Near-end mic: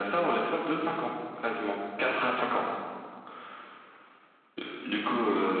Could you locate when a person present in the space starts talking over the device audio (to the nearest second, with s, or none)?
none